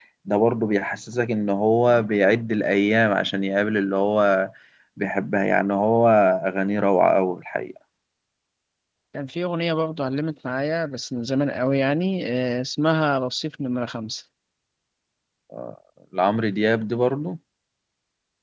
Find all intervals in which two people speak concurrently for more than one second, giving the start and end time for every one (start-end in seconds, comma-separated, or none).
none